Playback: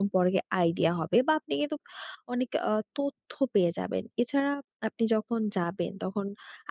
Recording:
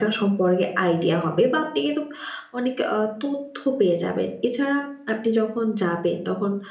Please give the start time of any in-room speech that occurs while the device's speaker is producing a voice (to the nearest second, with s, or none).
none